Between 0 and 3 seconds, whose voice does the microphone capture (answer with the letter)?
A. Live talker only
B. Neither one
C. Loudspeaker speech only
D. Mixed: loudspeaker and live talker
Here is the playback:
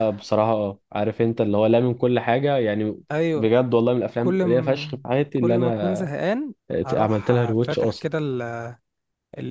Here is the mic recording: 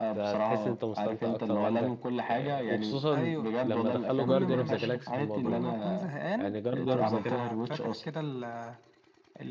D